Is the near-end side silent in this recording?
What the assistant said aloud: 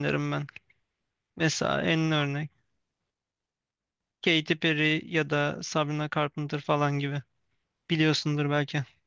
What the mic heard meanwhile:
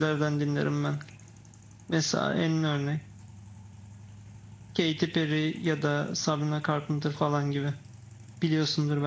Yes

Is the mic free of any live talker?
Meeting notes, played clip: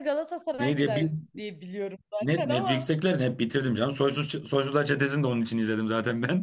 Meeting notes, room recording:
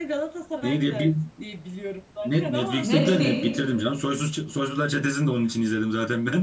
No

